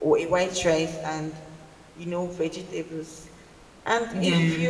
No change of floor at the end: Yes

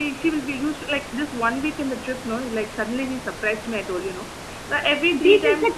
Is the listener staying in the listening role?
No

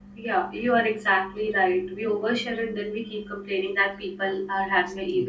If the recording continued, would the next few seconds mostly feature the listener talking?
No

